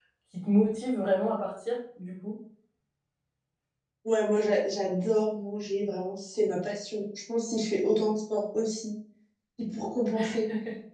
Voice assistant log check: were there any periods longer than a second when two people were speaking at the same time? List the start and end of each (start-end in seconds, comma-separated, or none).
none